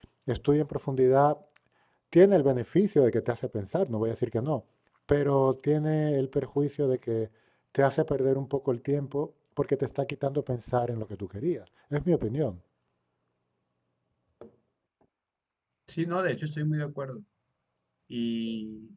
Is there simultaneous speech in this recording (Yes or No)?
No